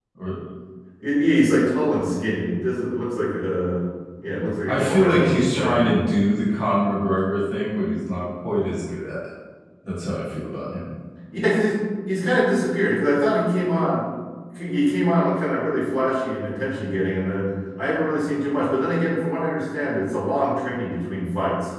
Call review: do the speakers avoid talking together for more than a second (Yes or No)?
No